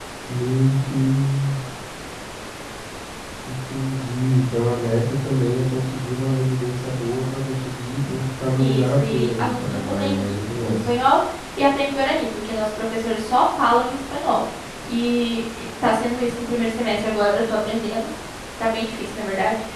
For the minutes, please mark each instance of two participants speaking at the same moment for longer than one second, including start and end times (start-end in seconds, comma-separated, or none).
8.6-10.8